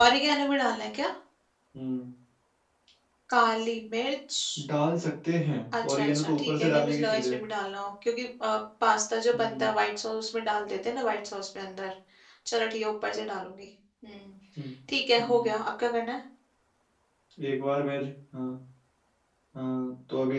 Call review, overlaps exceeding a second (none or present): present